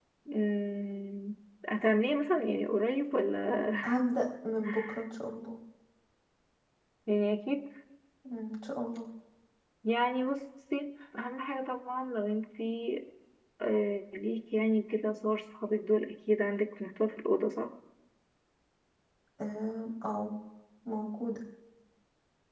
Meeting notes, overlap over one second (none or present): none